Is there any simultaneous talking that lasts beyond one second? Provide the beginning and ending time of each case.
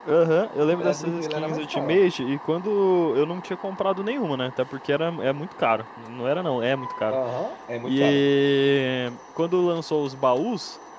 0.6-2.0

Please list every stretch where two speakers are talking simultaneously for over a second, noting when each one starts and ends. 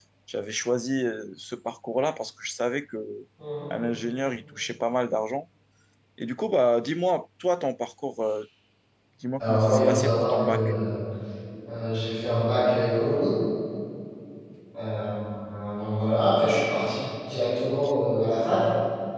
9.4-10.7

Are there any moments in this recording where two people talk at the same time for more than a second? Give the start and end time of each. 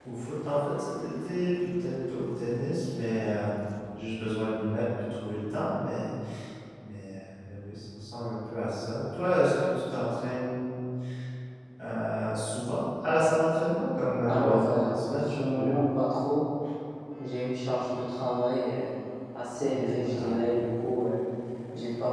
14.2-15.8

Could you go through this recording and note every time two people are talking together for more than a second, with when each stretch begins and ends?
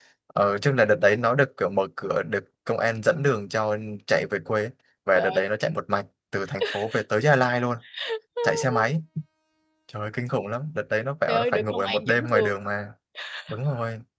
11.3-12.5

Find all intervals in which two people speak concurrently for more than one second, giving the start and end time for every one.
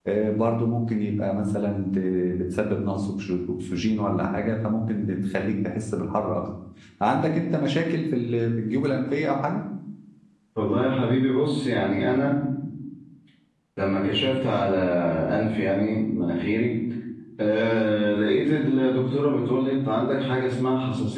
none

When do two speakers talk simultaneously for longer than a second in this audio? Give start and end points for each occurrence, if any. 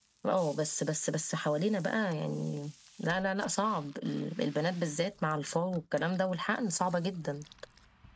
none

